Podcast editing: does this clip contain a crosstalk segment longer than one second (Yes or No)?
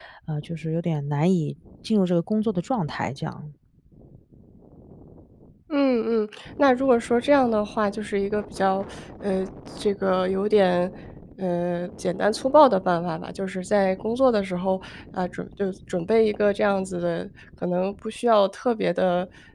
No